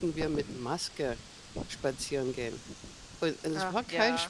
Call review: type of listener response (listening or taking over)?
listening